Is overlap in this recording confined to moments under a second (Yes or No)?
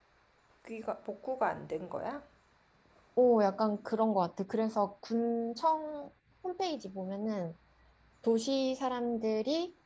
Yes